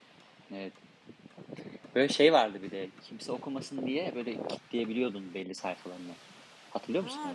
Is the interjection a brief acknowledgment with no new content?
No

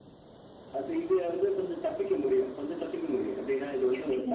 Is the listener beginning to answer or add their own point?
No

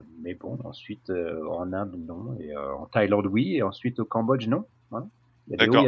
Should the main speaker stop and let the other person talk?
Yes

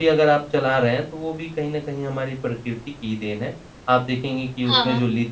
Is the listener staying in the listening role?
Yes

